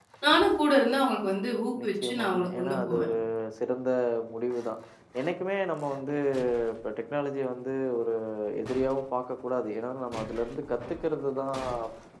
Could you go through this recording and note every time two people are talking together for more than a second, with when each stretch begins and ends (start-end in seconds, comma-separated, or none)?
1.8-3.1